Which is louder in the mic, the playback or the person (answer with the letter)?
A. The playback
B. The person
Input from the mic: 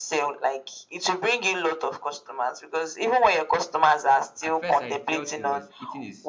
A